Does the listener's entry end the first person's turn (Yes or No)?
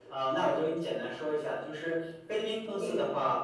No